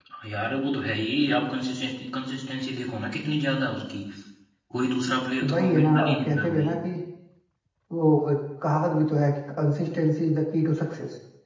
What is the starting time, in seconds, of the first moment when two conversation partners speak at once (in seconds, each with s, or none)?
5.5 s